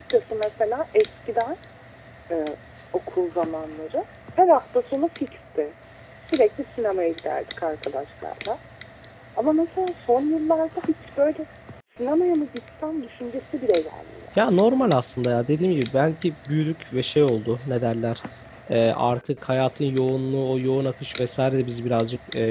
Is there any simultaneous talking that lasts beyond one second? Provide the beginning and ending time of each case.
none

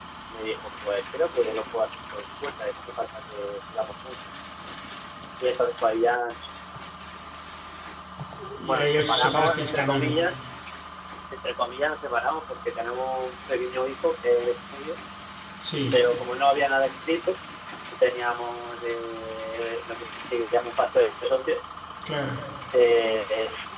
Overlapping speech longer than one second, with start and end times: 8.7-10.2

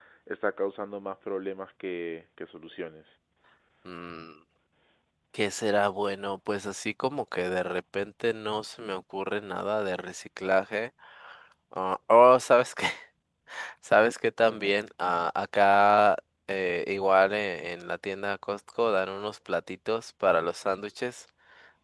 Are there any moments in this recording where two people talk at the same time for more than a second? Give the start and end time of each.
none

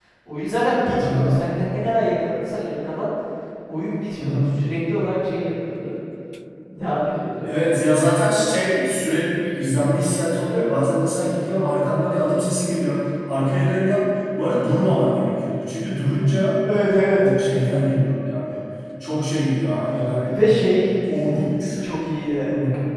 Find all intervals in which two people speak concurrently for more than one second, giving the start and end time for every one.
none

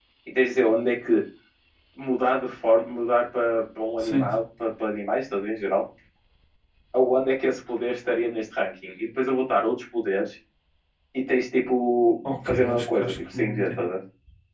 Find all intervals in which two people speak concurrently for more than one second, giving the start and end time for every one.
12.4-13.9

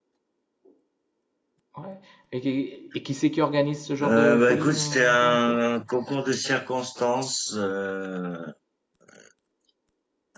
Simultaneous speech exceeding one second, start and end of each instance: 4.0-5.6

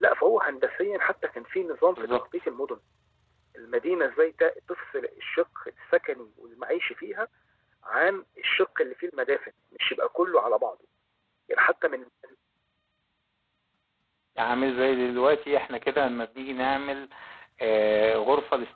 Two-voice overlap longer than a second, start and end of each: none

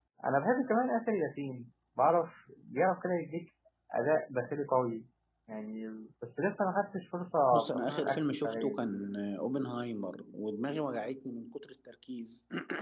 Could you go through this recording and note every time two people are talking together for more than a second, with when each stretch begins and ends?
7.5-8.9

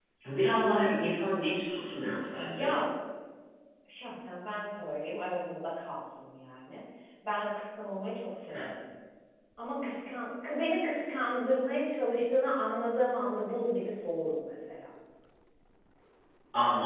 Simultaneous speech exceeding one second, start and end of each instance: none

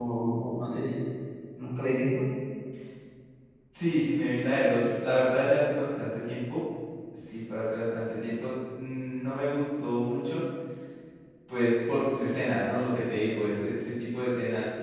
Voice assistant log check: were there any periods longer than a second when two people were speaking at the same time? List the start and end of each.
none

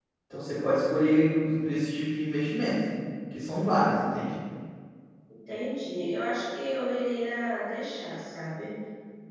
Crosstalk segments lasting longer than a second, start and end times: none

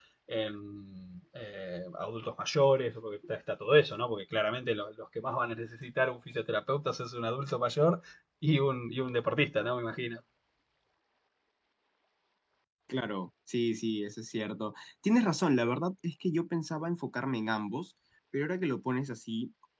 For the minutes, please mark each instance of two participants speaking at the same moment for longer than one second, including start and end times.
none

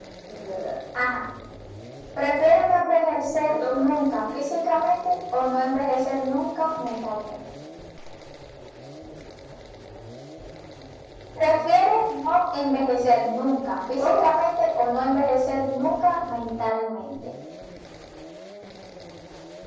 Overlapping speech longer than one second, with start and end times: 2.4-3.8

